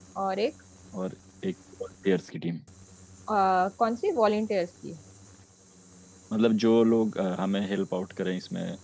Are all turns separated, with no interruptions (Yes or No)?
Yes